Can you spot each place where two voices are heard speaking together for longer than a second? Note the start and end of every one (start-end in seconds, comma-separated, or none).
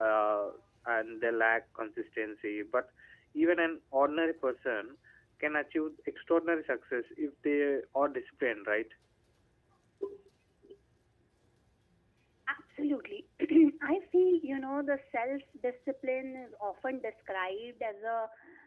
none